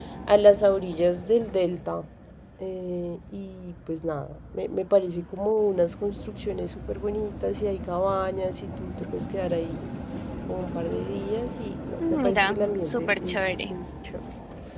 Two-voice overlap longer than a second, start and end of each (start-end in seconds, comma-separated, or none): 12.1-13.7